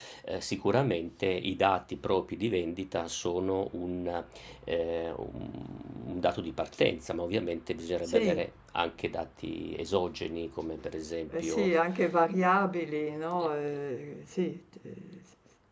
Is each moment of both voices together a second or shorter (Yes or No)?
Yes